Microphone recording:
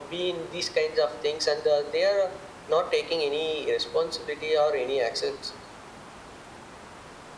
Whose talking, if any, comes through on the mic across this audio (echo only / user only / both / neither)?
echo only